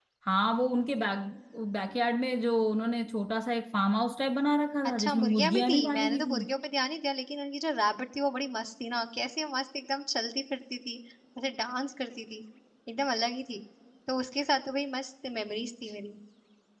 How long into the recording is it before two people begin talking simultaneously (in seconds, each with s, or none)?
4.8 s